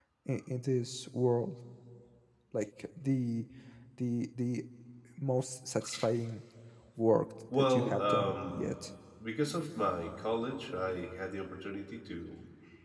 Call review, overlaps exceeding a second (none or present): present